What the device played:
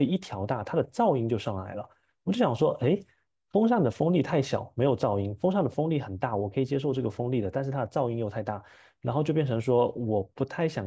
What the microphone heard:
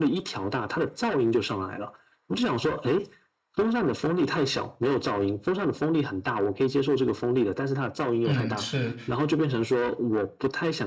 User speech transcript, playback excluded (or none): 嗯，是，